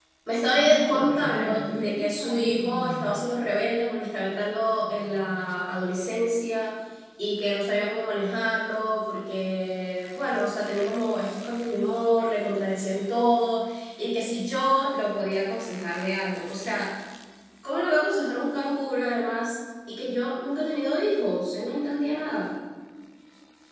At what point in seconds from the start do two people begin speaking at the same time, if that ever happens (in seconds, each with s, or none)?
0.6 s